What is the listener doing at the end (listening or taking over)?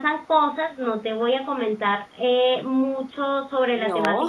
listening